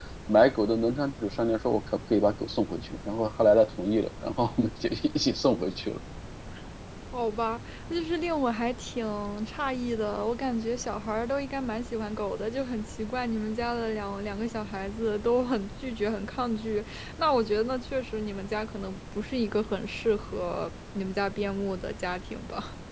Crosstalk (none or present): none